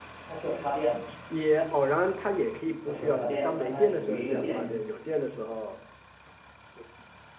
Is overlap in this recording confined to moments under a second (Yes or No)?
No